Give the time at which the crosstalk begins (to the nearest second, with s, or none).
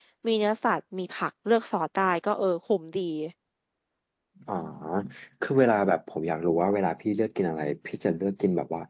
none